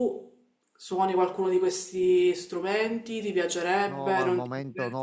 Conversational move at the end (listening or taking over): taking over